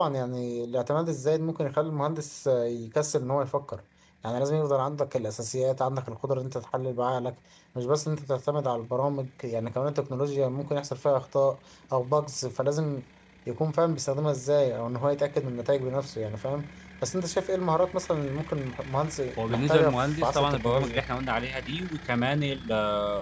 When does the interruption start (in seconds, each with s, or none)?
19.4 s